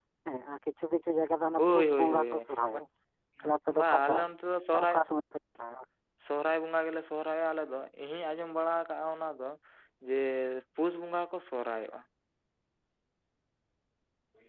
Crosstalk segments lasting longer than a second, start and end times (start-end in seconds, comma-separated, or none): 1.6-2.8